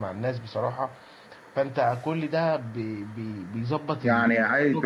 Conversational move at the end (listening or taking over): taking over